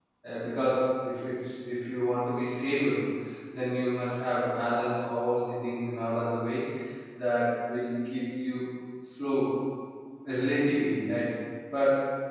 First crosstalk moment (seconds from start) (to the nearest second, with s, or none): none